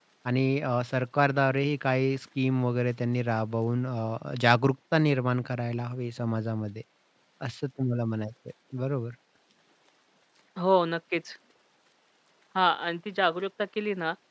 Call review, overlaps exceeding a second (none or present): none